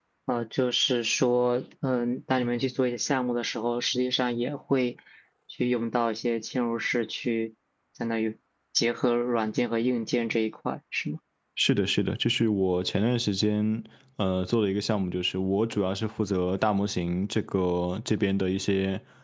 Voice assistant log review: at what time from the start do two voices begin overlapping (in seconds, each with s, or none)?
none